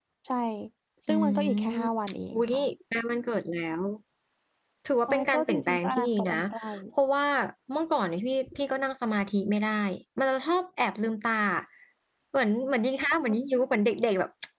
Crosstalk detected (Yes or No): Yes